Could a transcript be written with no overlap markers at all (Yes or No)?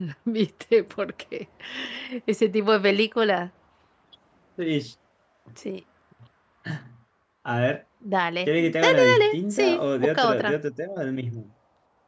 No